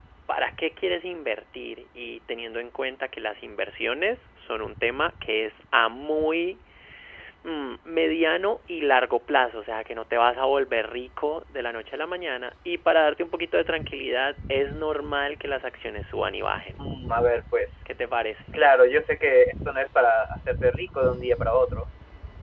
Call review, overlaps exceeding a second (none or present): none